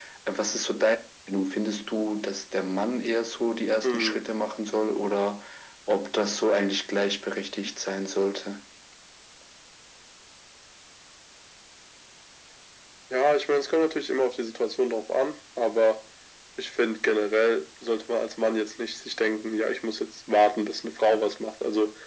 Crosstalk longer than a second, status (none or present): none